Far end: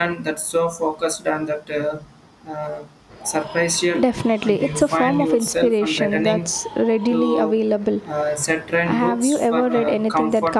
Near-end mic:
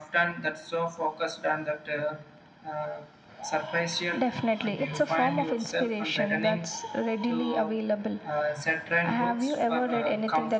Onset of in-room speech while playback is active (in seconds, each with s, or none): none